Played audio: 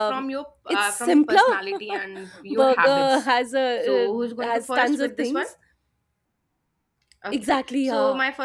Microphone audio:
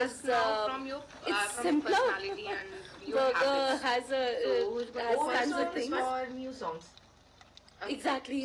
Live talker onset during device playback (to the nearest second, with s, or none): 5 s